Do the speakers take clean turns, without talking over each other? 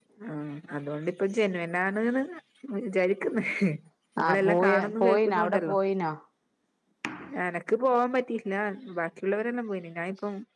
No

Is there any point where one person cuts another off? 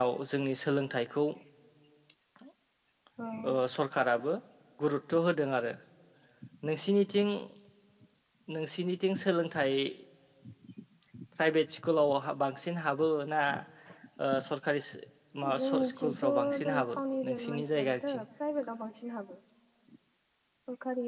Yes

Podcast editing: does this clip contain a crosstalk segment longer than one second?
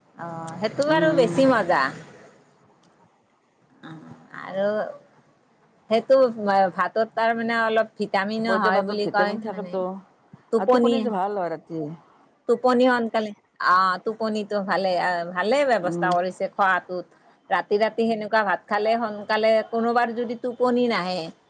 Yes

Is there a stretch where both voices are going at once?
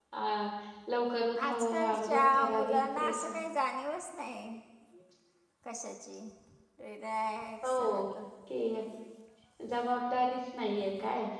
Yes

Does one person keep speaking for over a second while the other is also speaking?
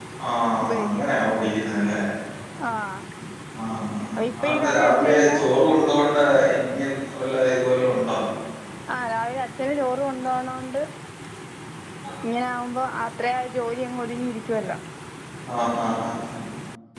Yes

